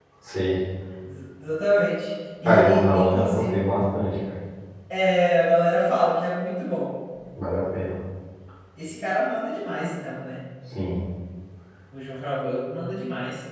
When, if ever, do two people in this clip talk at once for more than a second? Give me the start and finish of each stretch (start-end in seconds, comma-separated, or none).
2.4-3.6